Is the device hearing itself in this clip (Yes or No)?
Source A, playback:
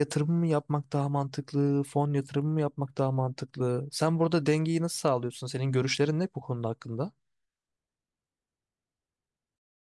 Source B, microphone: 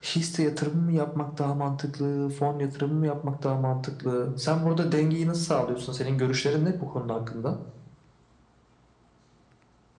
Yes